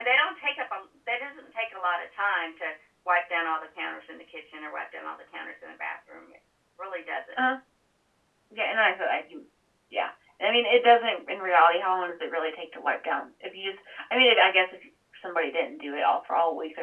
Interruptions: none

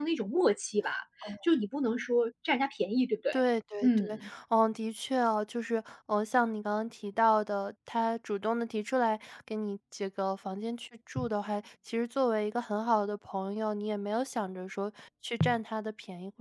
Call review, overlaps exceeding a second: none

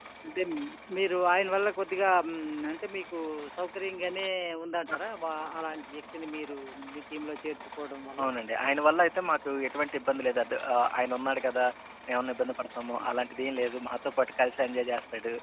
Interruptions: none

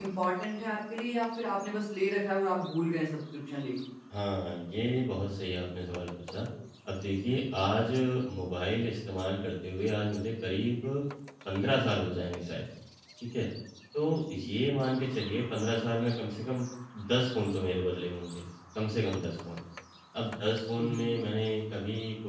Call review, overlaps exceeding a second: none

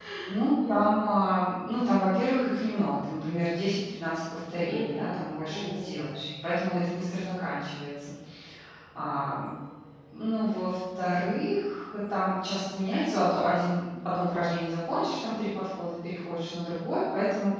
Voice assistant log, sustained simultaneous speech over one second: present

